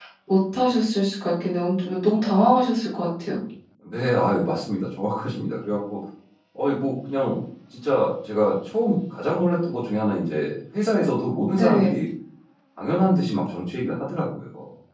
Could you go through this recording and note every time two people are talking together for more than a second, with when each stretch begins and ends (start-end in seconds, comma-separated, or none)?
none